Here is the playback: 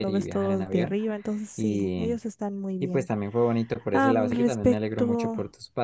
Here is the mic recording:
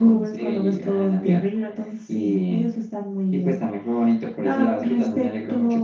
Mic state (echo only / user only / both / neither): echo only